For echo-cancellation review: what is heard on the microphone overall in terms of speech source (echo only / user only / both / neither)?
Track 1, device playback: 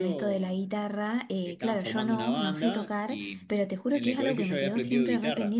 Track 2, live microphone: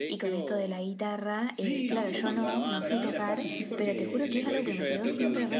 both